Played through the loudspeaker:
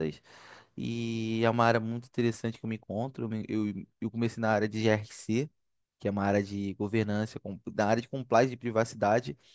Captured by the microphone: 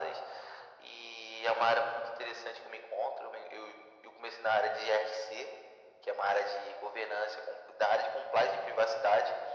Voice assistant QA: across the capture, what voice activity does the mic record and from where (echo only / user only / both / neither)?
echo only